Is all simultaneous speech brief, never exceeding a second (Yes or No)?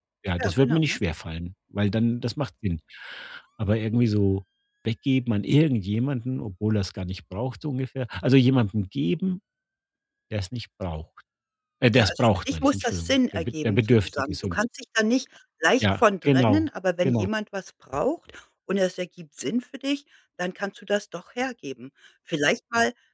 No